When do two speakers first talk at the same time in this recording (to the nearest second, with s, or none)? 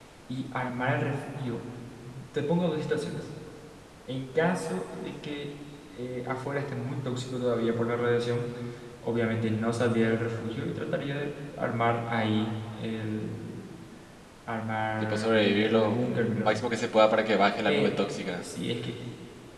15 s